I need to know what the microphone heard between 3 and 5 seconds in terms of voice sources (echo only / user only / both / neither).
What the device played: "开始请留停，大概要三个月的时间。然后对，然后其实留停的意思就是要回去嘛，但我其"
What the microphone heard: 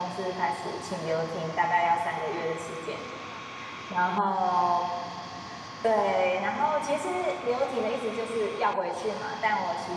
echo only